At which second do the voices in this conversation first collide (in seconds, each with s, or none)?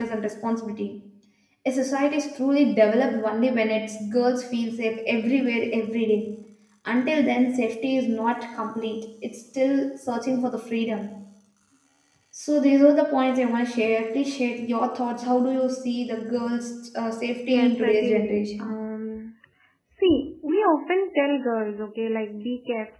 17.5 s